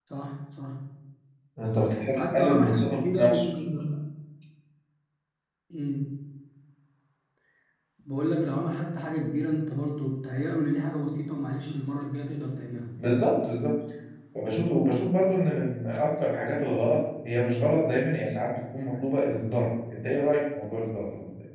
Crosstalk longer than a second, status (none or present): present